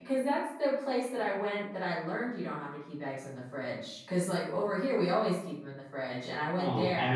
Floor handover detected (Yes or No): Yes